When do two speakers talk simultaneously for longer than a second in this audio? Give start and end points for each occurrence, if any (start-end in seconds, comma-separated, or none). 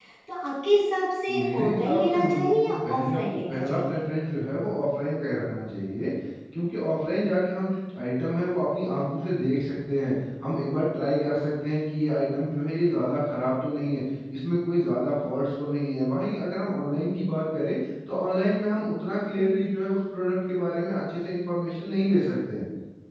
1.5-4.0